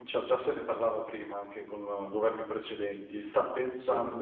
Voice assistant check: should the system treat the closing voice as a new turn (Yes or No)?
No